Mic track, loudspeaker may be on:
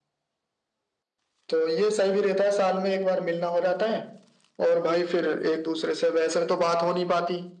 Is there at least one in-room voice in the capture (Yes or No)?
No